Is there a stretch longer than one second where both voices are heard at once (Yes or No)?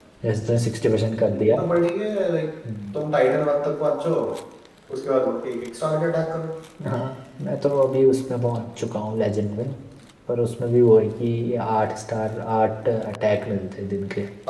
No